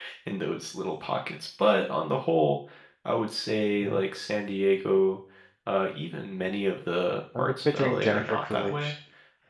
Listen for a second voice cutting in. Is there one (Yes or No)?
Yes